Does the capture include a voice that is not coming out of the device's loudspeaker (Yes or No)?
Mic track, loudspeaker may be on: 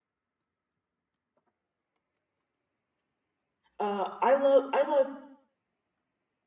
Yes